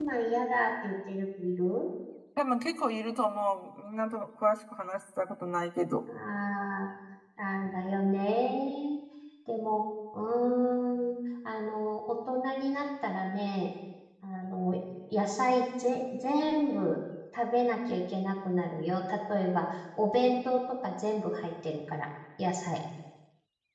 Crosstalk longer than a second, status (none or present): none